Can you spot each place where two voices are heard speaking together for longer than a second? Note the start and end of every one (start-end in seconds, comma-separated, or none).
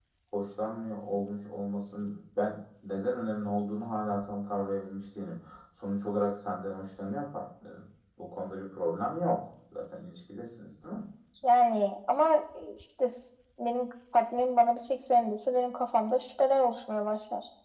none